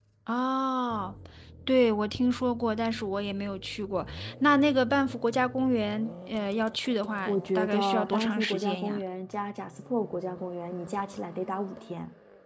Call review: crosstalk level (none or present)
present